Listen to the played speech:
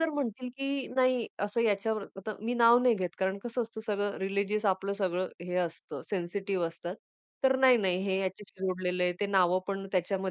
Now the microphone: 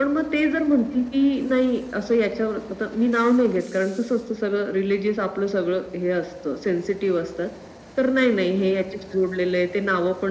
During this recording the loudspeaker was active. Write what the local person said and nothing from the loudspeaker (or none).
none